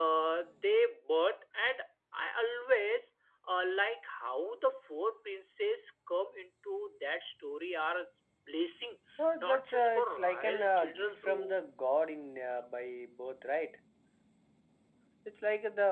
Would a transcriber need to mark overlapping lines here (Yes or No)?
Yes